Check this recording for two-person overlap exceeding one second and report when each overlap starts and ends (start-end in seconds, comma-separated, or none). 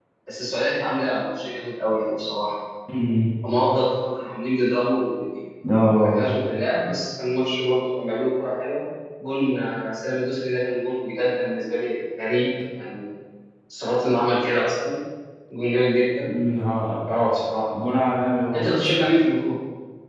none